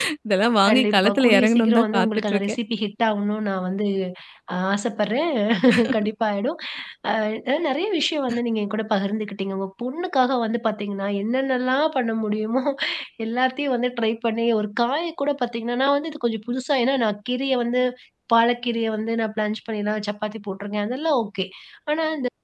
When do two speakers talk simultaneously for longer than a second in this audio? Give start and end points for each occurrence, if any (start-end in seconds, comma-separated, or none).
0.7-2.6